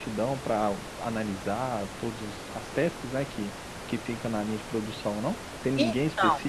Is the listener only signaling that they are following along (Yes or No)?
Yes